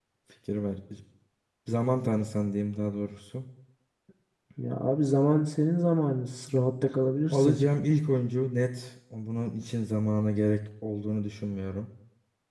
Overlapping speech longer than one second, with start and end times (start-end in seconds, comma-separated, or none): none